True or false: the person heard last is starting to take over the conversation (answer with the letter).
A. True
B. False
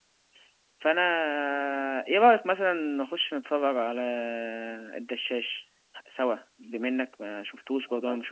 A